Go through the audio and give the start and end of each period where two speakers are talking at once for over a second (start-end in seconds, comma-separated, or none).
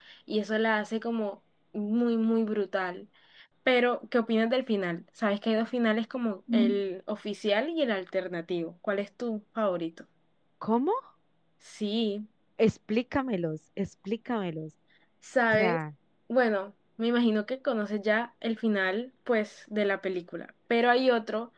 none